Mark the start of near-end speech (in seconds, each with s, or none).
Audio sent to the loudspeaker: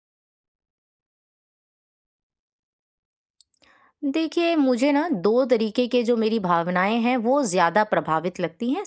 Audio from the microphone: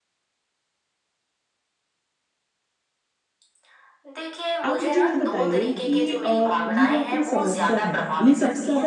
4.7 s